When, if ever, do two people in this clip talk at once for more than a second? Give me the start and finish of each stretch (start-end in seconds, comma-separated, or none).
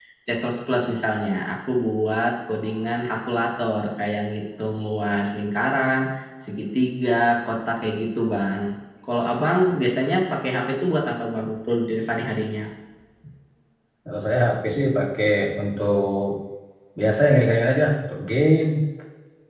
none